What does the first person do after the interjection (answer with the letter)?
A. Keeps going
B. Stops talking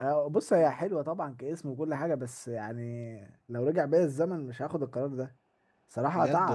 A